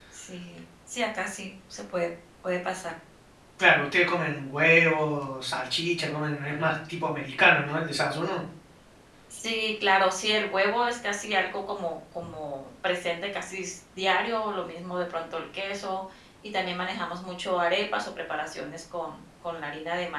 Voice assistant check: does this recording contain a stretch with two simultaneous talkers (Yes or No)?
No